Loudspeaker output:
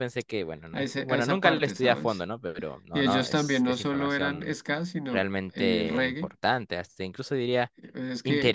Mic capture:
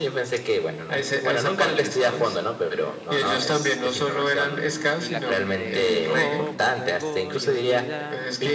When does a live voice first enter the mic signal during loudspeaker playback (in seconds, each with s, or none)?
4.2 s